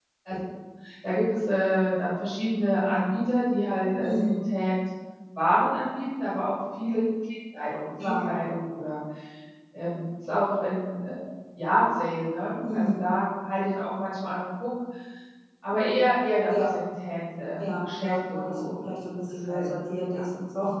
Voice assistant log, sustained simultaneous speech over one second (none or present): present